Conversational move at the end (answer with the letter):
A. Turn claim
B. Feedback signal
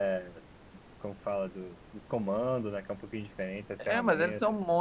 A